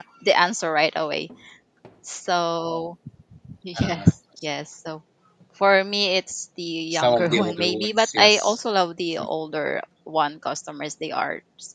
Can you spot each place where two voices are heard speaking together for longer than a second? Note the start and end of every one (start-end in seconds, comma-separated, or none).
6.9-8.6